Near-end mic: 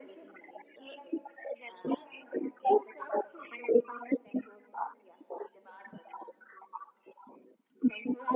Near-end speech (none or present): none